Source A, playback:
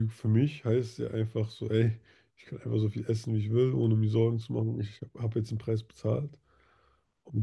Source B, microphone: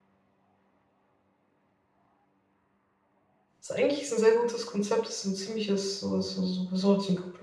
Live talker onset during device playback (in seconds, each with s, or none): 3.6 s